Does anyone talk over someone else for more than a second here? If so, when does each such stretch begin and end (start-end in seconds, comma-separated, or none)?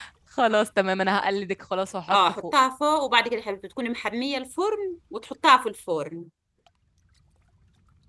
none